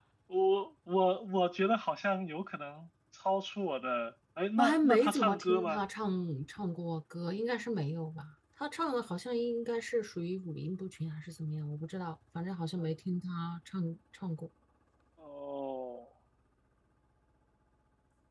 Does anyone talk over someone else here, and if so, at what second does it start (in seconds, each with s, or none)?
4.6 s